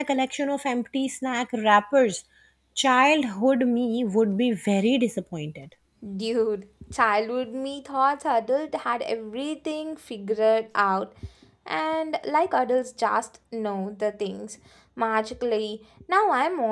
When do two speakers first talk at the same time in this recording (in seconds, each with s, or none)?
none